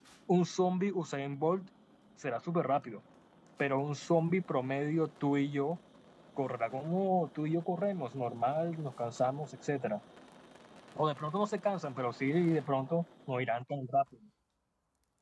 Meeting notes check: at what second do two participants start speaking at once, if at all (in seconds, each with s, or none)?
none